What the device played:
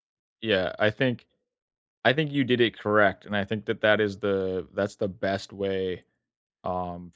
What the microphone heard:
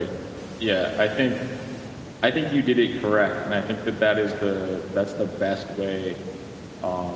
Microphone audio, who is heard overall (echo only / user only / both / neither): echo only